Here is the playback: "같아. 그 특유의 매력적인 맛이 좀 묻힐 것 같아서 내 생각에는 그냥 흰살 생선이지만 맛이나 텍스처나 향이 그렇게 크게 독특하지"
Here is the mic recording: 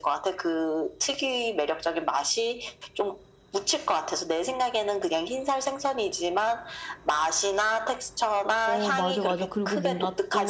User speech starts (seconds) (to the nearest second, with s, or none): 9 s